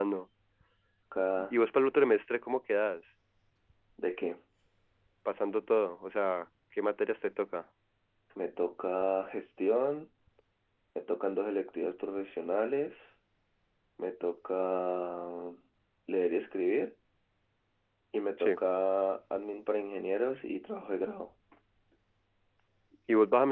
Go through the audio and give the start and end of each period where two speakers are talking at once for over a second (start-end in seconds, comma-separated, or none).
none